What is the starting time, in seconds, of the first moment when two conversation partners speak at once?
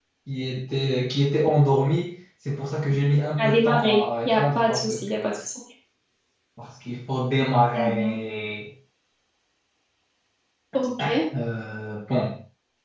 3.4 s

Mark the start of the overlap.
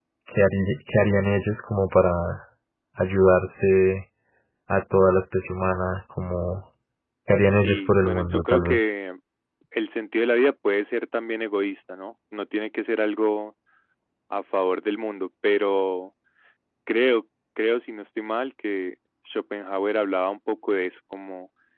7.5 s

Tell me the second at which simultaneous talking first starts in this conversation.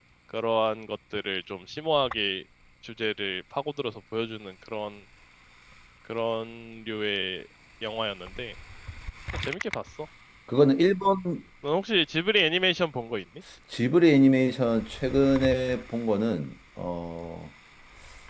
none

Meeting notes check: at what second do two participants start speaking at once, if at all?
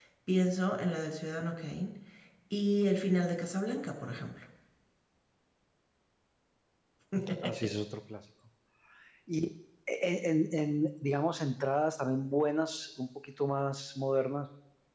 none

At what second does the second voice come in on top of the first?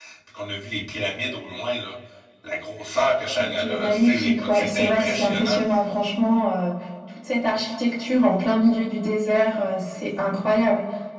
3.4 s

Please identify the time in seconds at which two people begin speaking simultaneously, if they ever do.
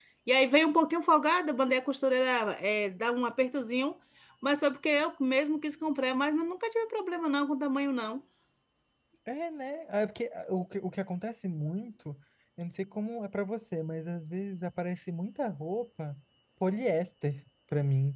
none

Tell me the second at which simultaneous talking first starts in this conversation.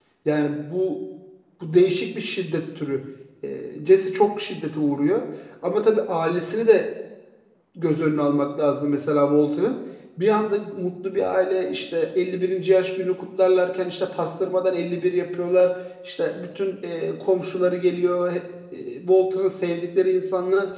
none

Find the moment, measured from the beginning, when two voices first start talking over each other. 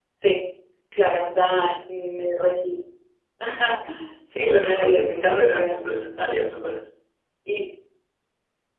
4.3 s

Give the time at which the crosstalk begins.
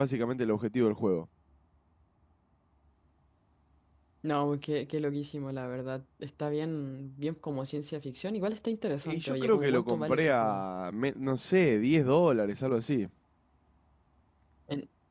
9.1 s

